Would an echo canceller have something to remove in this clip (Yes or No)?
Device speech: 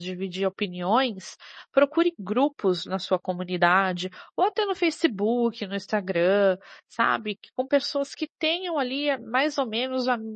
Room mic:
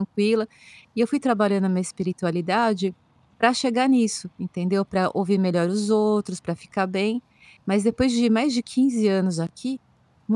No